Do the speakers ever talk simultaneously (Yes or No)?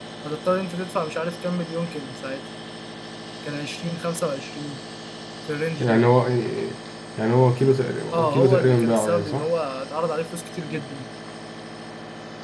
Yes